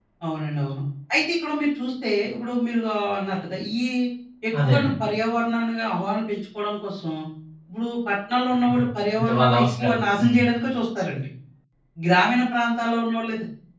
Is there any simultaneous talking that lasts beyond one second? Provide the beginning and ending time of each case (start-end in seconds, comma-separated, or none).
9.2-10.4